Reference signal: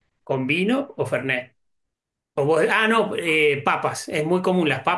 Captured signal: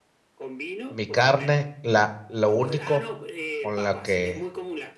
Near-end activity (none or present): present